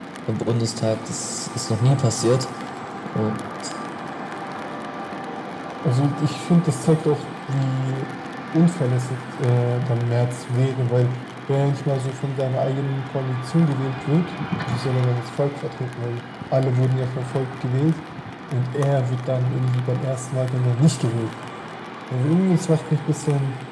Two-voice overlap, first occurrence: none

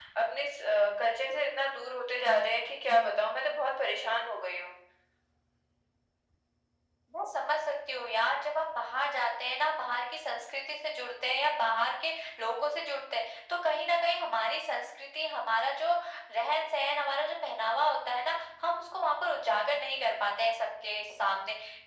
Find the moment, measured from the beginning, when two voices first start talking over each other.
none

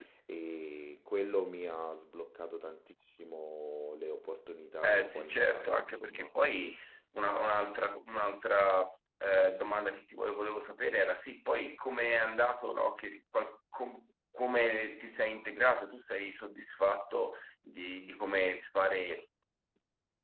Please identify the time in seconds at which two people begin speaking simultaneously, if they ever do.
4.8 s

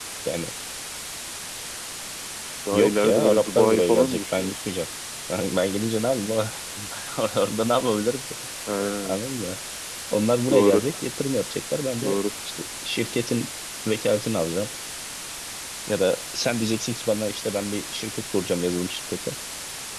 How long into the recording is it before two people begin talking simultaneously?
2.7 s

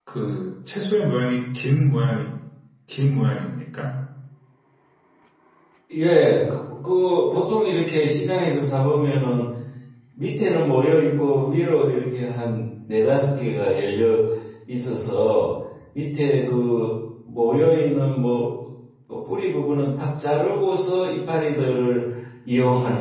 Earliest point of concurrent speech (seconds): none

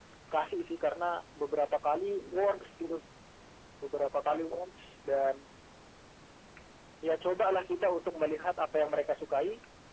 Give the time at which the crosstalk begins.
none

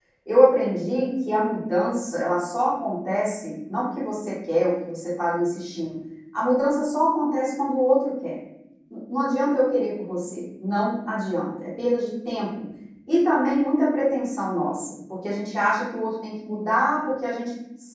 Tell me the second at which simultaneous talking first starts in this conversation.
none

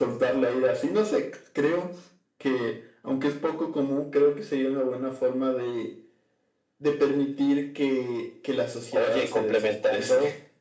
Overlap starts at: 8.9 s

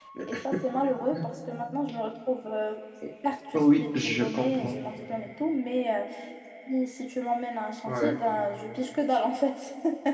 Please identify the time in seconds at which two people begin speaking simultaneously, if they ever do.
3.5 s

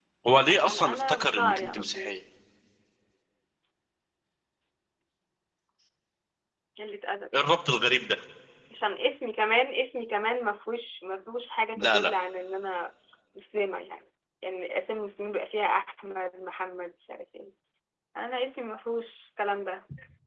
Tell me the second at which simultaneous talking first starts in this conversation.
0.5 s

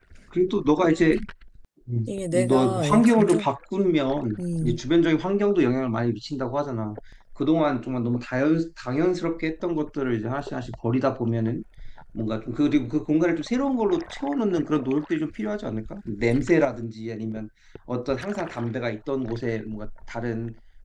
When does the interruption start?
2.1 s

